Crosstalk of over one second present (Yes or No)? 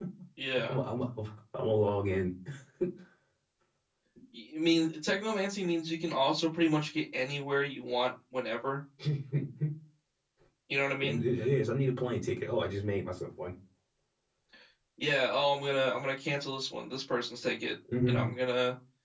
No